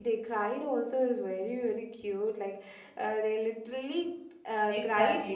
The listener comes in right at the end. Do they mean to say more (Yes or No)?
Yes